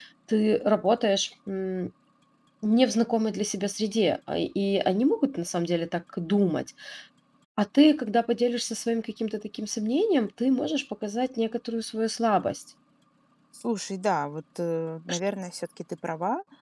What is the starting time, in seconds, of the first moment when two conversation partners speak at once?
none

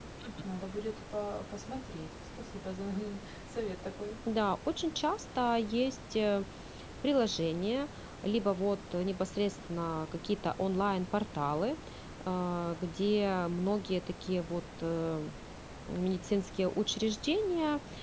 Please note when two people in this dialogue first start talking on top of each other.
none

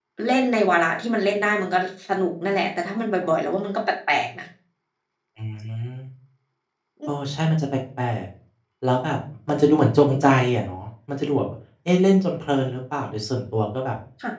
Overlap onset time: none

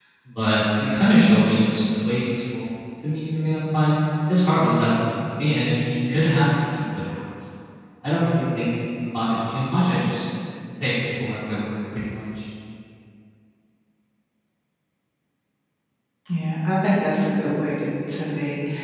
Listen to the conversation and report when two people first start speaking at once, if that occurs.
none

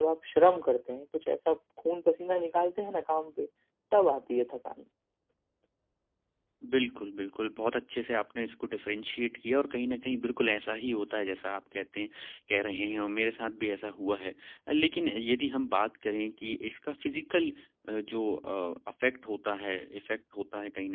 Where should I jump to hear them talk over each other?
none

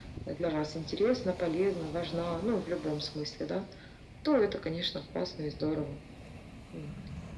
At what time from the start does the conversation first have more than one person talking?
none

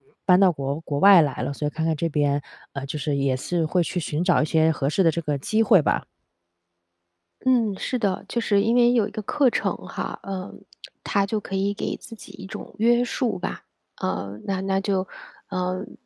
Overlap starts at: none

